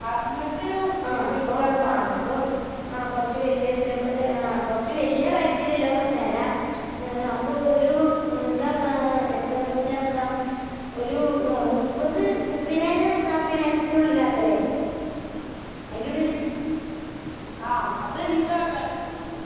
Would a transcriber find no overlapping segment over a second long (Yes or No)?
No